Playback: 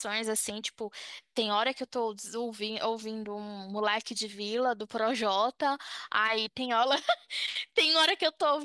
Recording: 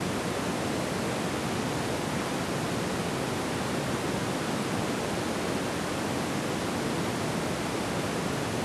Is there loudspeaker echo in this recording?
No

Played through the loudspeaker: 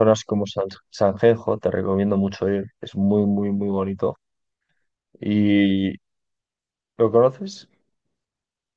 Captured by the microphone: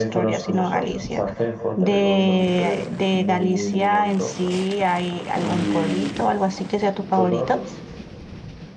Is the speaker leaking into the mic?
Yes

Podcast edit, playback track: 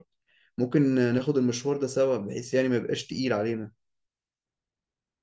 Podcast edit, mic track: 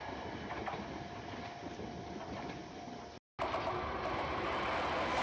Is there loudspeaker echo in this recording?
No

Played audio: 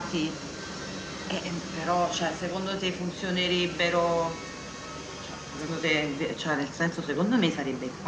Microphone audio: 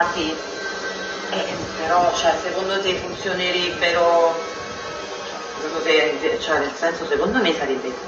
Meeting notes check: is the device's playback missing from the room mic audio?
No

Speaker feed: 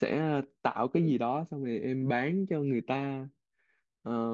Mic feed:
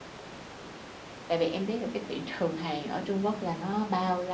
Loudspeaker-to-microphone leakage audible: No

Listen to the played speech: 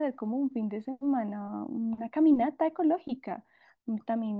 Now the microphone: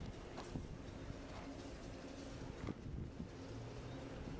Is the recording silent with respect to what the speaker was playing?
Yes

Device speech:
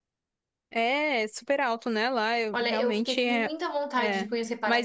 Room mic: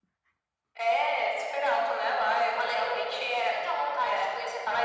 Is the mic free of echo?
No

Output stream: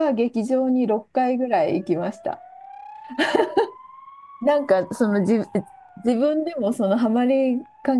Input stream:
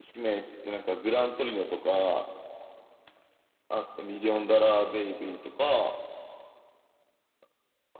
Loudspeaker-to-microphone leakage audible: No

